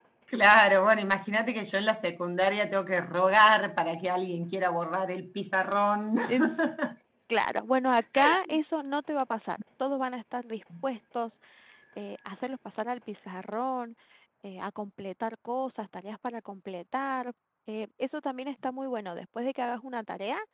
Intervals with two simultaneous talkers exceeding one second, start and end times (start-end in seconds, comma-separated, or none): none